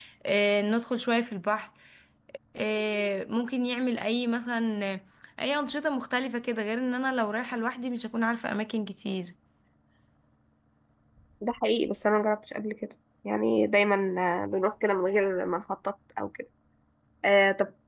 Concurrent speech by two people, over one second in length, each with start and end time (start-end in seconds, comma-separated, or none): none